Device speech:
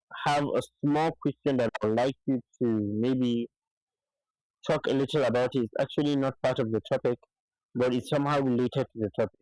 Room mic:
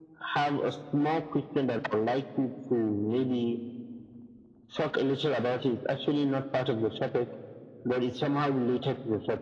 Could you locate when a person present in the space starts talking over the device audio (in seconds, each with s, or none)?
none